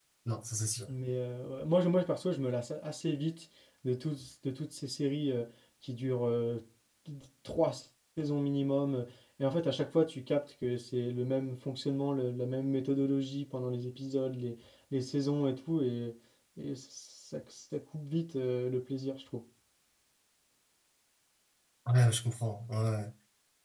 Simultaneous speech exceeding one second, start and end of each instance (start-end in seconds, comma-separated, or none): none